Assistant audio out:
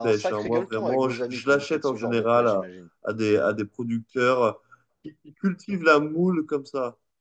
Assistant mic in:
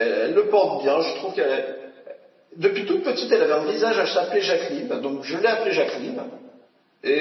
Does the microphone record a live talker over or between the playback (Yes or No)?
Yes